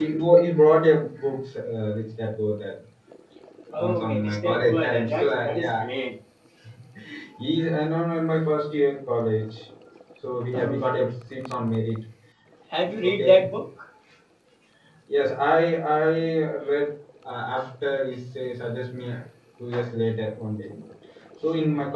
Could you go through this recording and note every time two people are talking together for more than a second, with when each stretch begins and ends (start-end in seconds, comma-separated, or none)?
3.8-5.7